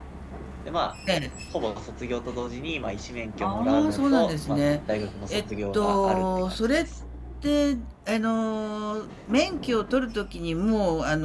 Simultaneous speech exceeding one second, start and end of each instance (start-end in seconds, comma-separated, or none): 3.4-4.7, 5.3-6.8